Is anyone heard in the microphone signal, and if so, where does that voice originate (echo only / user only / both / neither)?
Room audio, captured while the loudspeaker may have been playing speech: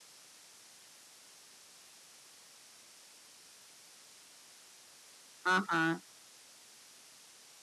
user only